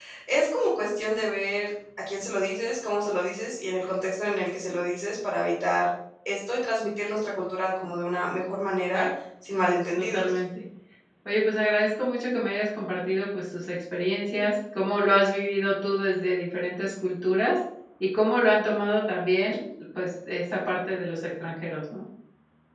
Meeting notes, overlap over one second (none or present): none